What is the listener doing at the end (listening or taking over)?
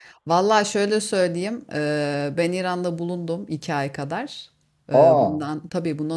listening